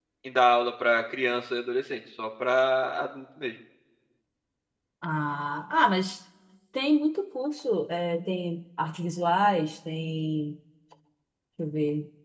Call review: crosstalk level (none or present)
none